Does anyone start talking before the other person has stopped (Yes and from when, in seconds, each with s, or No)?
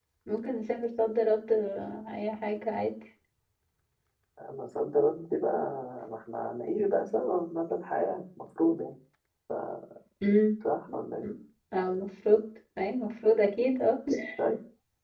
No